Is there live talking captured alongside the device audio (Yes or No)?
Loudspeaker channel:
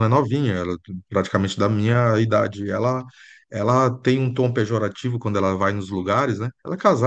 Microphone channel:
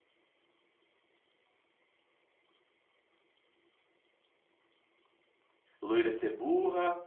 Yes